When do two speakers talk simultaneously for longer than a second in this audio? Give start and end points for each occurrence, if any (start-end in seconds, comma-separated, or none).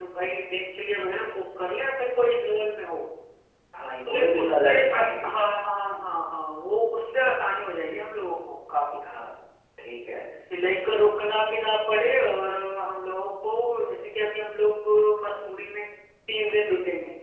4.1-5.3